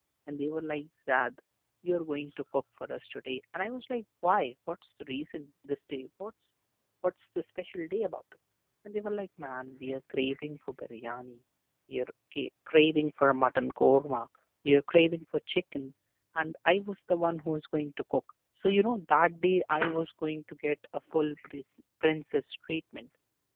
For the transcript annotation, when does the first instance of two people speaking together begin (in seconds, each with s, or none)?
none